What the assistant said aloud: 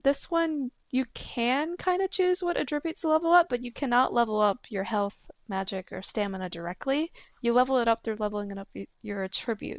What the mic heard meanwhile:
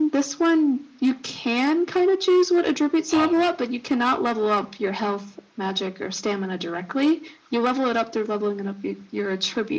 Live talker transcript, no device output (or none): Um,